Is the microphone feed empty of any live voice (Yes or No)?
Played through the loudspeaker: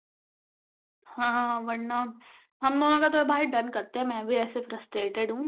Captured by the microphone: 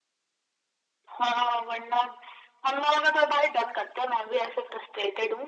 Yes